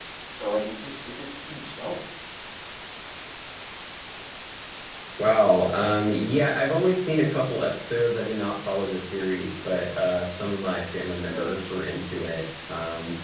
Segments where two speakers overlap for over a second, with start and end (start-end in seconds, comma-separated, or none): none